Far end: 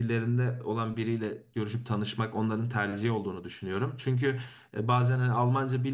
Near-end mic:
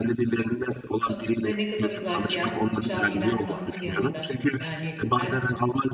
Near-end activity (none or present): present